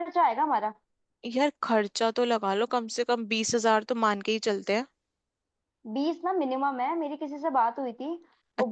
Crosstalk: none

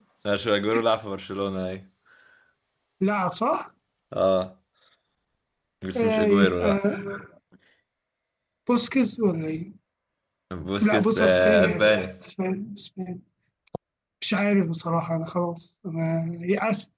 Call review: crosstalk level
present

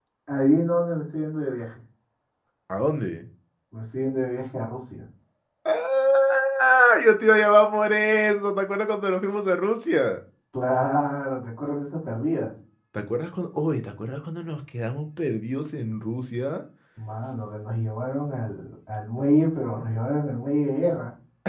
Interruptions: none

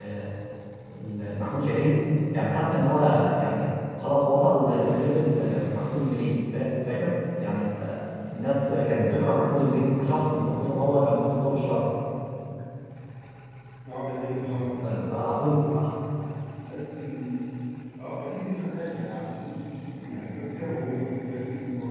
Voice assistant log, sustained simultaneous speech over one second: none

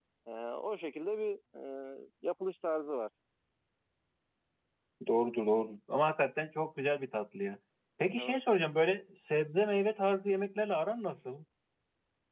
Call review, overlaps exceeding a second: none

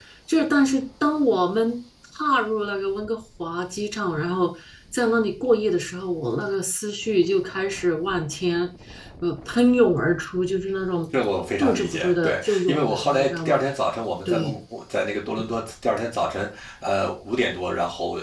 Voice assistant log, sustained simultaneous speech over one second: present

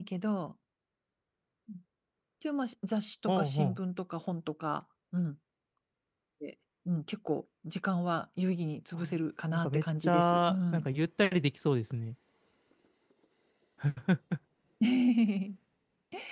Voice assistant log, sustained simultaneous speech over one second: present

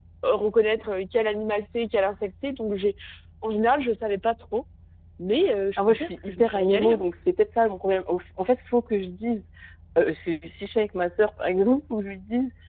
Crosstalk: present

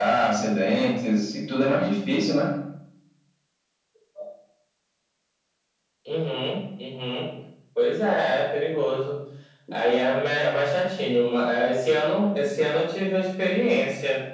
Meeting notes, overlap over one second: none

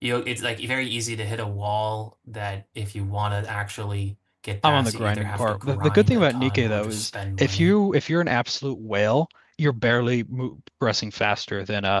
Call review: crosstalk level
present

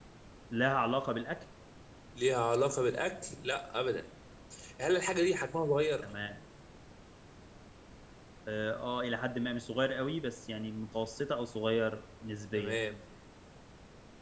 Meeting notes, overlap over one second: none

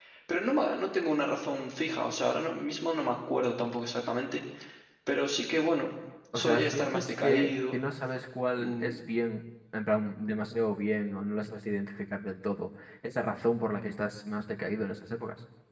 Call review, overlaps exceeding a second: present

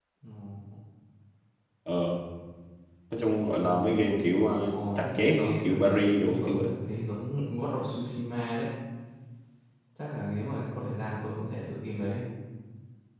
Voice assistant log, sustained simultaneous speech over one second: present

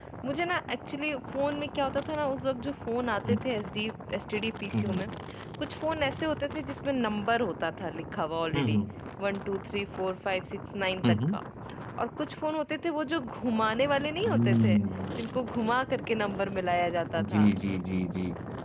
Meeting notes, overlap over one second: none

